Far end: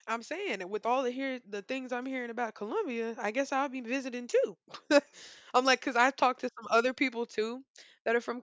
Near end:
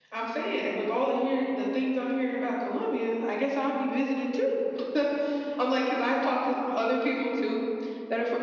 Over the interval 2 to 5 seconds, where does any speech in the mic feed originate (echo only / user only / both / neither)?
echo only